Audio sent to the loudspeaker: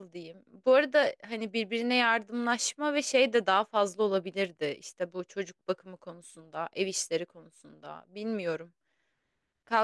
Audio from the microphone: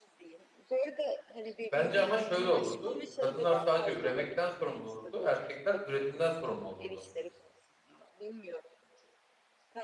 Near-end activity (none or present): present